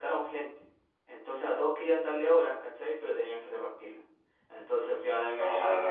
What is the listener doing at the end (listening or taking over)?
listening